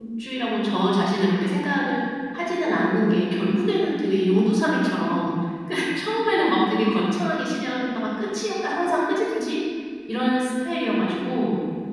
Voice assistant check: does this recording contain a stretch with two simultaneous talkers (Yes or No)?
No